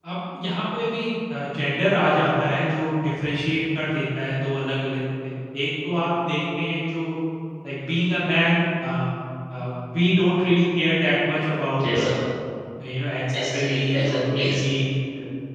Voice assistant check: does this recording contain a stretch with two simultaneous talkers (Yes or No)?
Yes